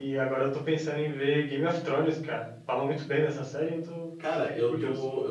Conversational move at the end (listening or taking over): taking over